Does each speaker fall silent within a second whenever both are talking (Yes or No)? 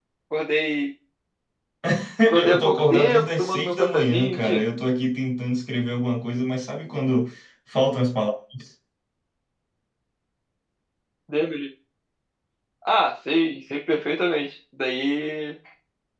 No